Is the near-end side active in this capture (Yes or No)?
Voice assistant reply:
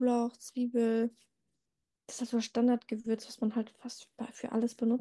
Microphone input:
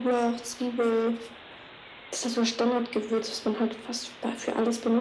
No